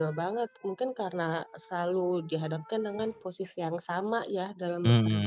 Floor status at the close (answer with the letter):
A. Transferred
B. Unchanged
A